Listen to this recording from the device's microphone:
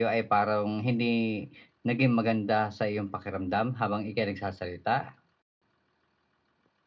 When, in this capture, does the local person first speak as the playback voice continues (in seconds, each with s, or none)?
none